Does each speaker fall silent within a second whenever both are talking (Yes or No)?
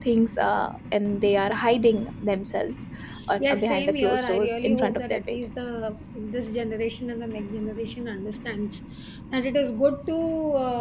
No